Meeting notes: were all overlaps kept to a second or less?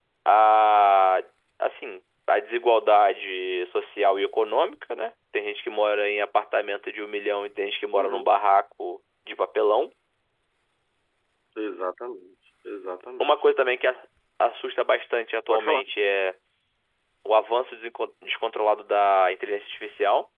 Yes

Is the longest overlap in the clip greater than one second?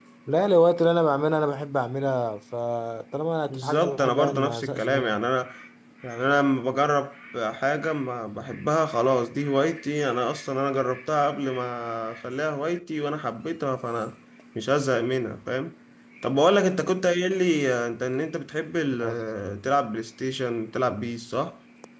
Yes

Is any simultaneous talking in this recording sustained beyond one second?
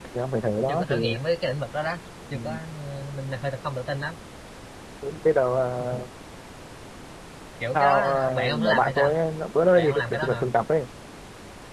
Yes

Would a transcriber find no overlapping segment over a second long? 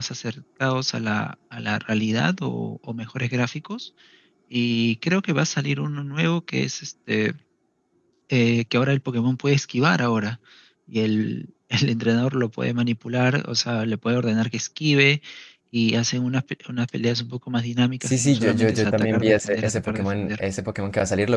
No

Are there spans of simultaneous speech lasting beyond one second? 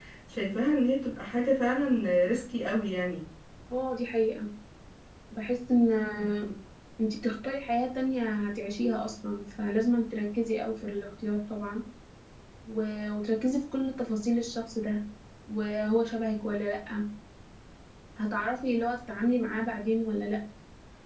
No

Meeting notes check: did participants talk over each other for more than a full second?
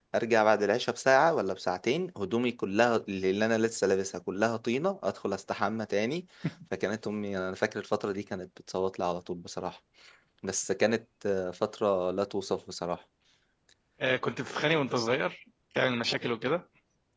No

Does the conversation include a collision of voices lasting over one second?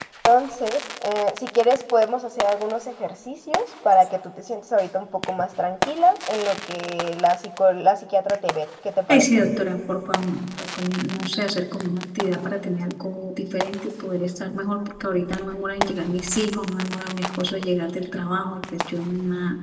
No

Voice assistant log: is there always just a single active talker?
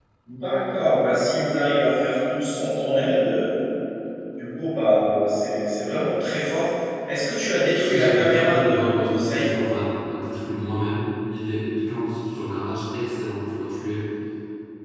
No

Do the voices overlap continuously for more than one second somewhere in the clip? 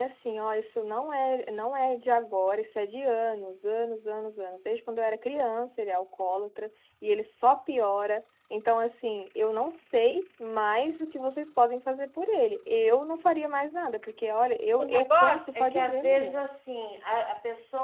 Yes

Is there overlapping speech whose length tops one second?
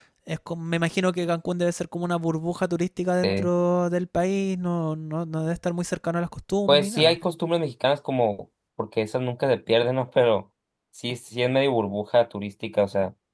No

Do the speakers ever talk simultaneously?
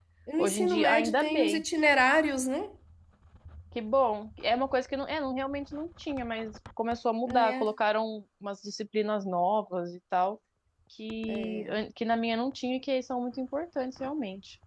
Yes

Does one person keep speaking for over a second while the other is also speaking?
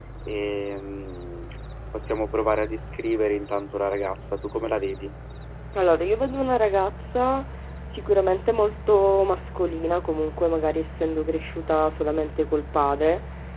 No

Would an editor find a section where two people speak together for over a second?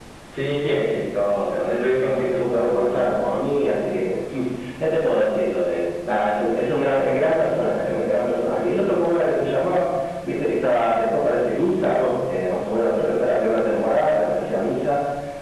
Yes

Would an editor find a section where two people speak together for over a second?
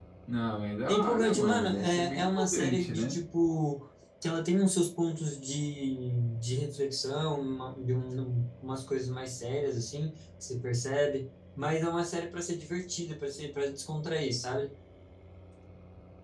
Yes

